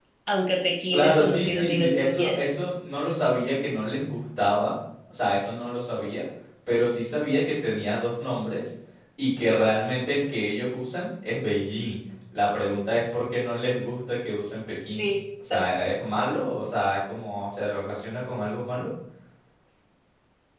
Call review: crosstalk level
present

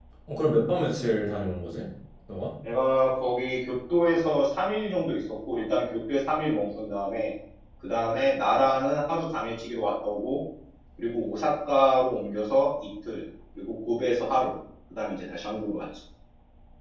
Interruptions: none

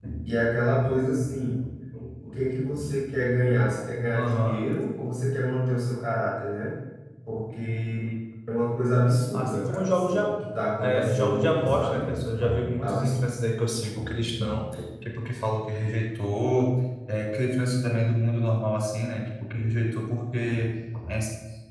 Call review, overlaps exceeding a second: present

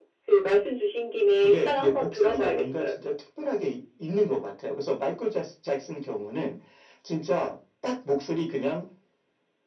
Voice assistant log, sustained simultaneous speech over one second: present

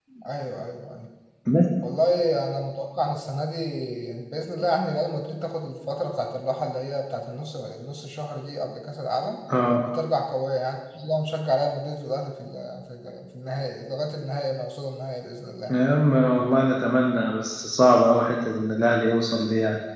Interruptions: none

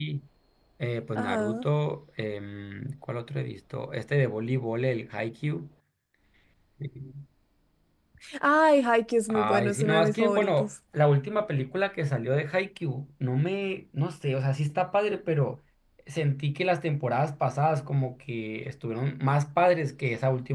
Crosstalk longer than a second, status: present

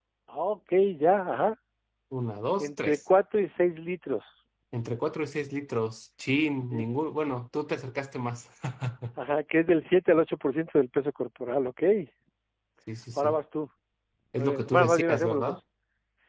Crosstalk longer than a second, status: present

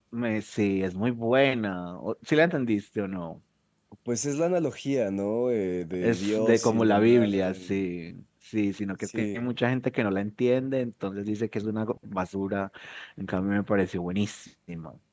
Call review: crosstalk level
present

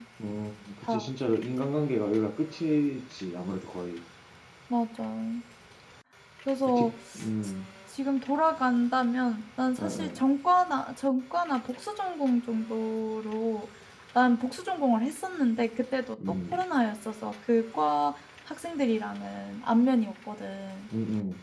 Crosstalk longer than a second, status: none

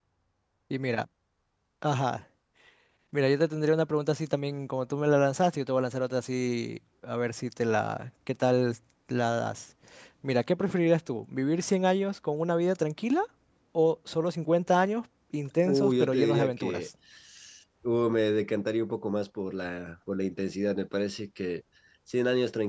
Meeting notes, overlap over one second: present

